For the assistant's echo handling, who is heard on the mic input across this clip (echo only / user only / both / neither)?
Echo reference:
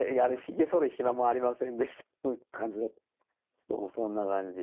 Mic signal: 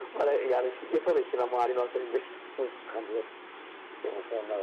echo only